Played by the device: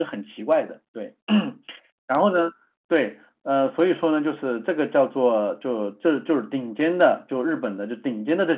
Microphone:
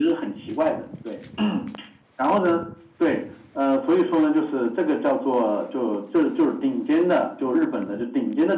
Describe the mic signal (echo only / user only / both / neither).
echo only